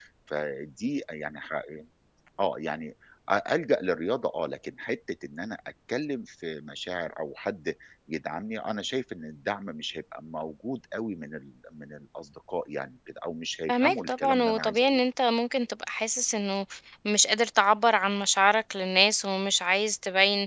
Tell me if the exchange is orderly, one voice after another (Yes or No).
No